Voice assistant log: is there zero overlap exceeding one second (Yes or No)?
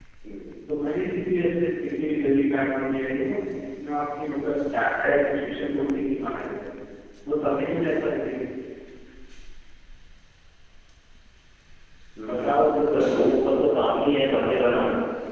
No